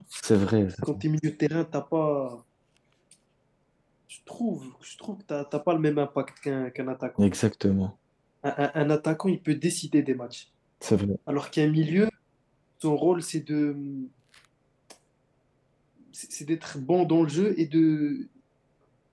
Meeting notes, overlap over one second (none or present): none